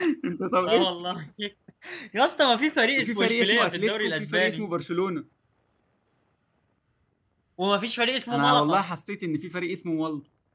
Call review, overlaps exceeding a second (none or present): present